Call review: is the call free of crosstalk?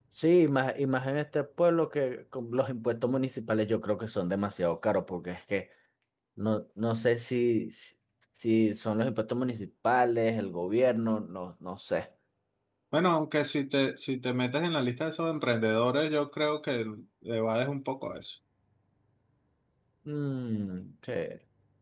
Yes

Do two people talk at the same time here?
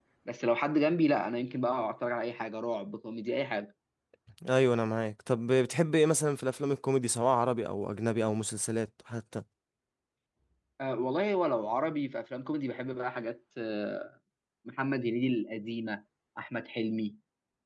No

